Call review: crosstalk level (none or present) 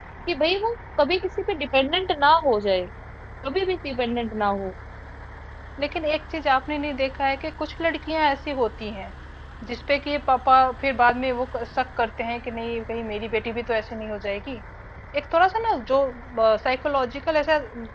none